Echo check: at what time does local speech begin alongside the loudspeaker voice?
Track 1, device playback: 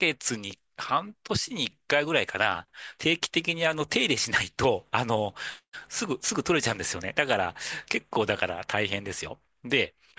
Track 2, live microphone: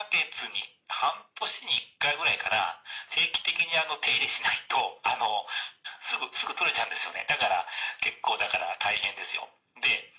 none

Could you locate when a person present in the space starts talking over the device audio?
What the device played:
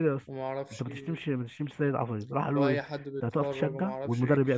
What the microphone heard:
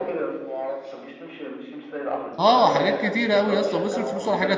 2.4 s

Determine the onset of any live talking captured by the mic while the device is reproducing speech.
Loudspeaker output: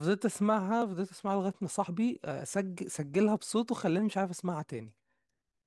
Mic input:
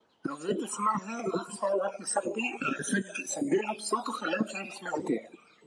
none

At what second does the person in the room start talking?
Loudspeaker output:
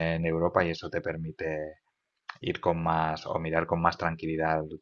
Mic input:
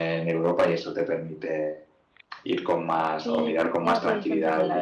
3.2 s

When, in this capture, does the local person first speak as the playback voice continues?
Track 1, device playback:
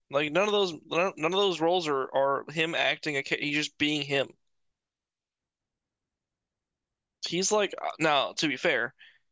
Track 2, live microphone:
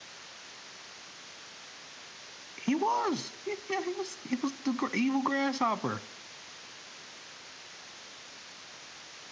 2.6 s

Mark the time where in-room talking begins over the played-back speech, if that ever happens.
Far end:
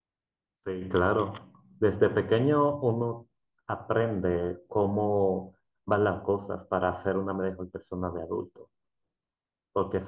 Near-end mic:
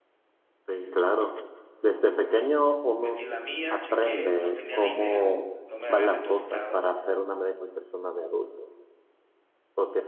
3.0 s

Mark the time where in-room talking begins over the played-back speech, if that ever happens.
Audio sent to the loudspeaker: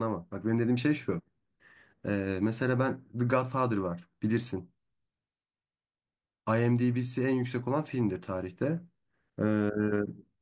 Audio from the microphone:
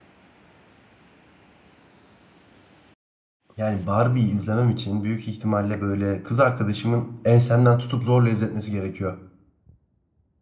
3.6 s

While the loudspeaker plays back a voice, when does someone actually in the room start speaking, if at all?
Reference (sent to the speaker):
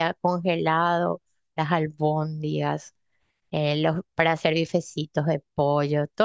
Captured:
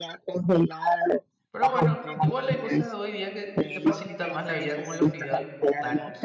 1.5 s

